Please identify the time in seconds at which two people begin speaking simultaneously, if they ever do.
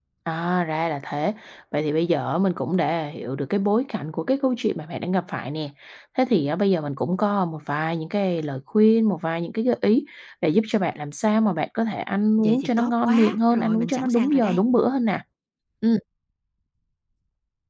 12.4 s

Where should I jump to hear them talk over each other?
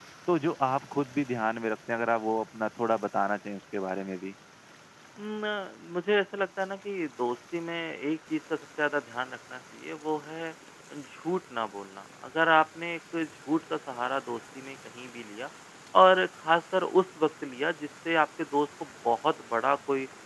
none

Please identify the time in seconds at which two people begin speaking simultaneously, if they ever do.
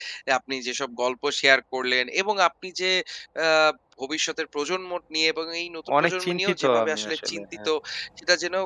5.9 s

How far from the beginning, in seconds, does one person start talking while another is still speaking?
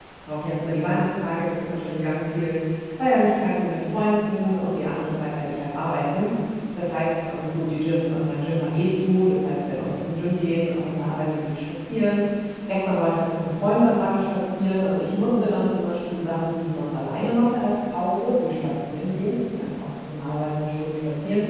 none

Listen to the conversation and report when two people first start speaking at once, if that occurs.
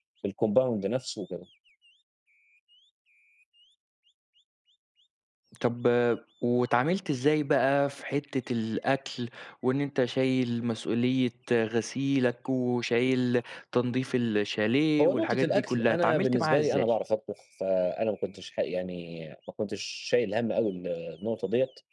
15.0 s

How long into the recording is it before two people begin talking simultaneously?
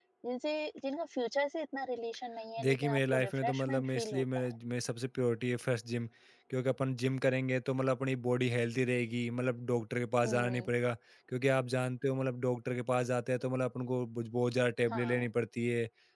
2.6 s

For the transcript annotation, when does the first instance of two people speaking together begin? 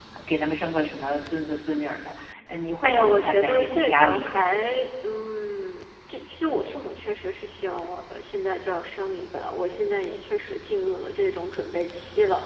2.8 s

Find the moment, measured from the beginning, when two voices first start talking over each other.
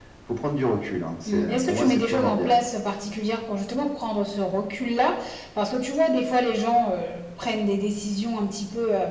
1.3 s

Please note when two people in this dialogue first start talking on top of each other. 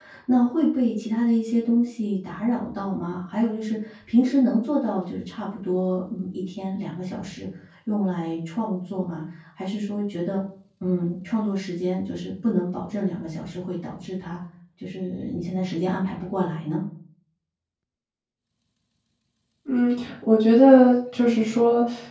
none

